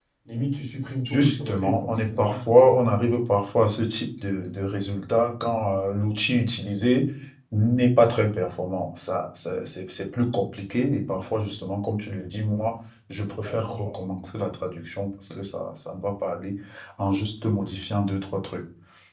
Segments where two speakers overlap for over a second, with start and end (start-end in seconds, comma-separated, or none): 1.0-2.4